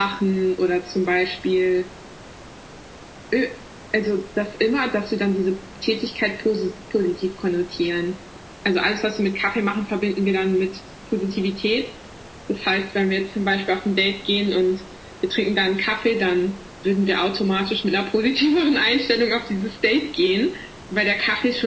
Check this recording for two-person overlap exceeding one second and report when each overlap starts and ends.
none

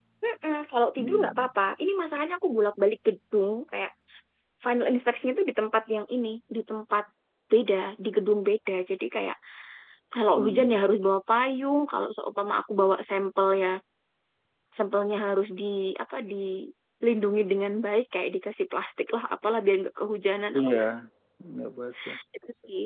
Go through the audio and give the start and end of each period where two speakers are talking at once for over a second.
none

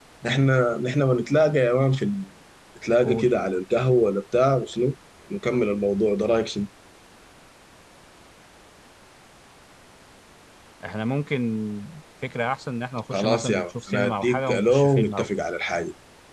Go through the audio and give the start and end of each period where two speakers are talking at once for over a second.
13.1-15.3

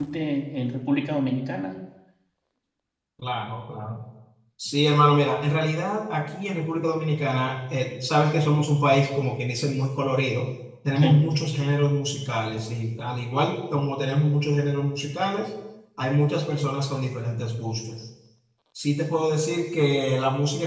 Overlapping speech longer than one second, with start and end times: none

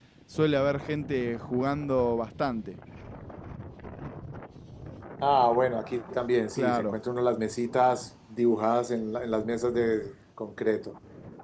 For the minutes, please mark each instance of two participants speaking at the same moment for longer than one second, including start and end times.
none

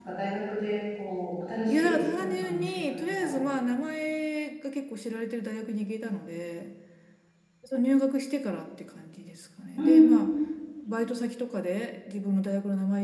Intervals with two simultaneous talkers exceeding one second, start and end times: 1.7-3.4

